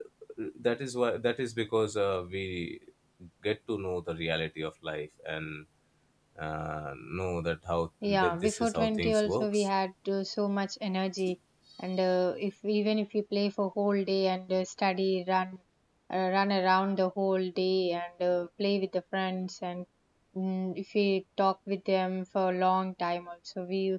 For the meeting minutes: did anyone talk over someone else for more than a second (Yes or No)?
Yes